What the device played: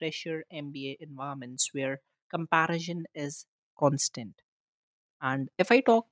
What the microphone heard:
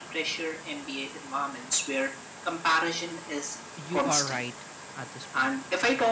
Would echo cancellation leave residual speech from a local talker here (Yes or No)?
Yes